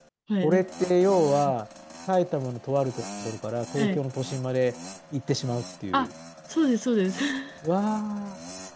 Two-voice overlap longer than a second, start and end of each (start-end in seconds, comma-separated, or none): none